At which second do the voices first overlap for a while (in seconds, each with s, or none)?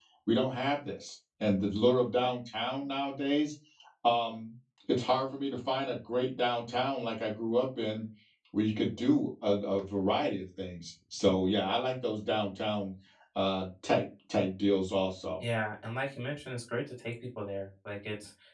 none